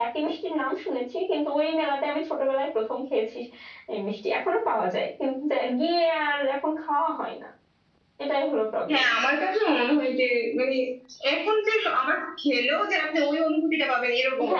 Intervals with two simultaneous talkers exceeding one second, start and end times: none

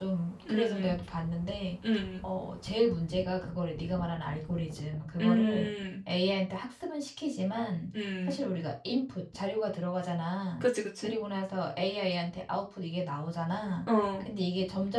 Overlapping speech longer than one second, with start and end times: none

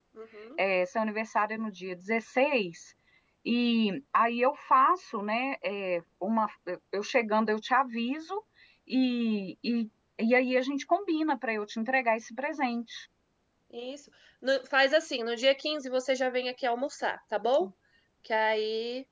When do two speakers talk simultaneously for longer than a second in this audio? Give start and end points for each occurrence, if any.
none

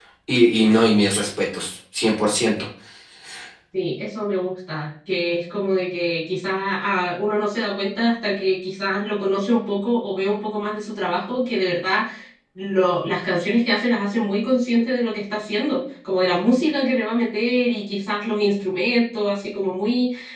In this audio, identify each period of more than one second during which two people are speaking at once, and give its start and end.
none

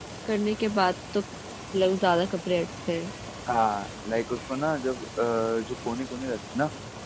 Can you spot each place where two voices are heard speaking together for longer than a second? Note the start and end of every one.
none

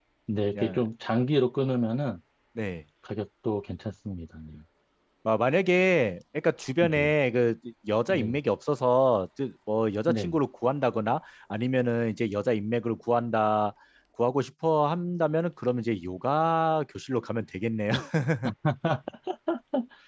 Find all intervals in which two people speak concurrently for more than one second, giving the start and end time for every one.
none

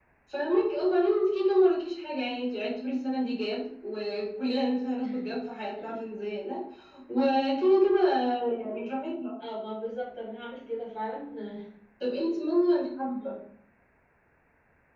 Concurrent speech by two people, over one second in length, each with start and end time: none

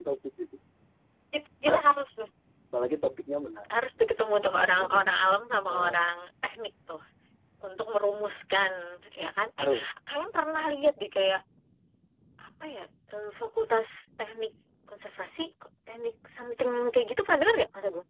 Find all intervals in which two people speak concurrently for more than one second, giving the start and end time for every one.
none

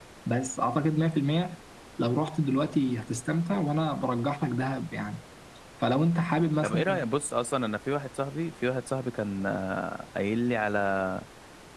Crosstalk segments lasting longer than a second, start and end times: none

